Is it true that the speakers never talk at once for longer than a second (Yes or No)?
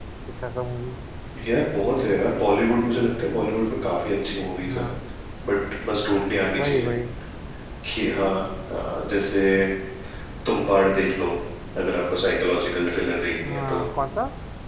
Yes